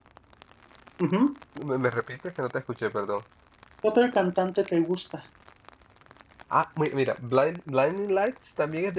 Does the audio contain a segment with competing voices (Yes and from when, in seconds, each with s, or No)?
No